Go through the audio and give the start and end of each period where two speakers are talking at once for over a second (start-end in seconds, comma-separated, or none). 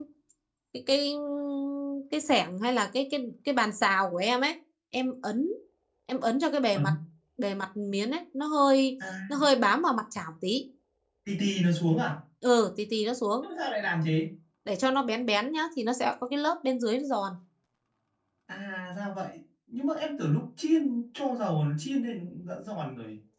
none